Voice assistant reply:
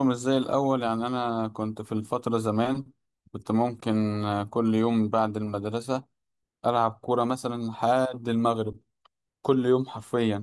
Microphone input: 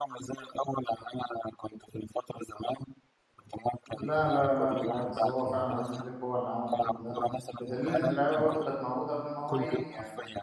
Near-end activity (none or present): present